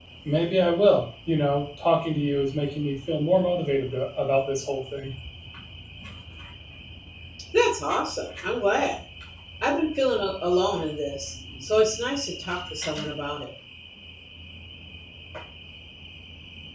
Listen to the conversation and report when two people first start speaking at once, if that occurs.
none

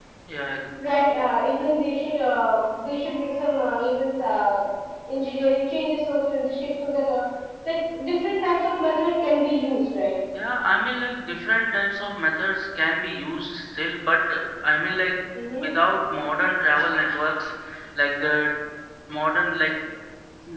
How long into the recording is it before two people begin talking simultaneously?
none

